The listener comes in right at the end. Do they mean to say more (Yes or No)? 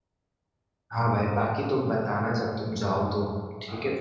Yes